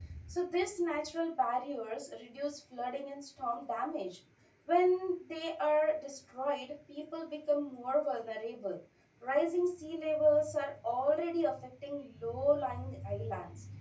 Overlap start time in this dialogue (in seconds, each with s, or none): none